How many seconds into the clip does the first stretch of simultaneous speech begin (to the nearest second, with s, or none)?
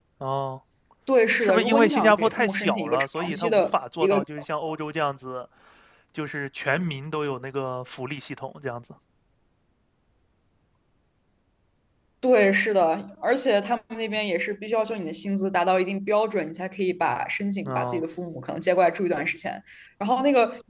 1 s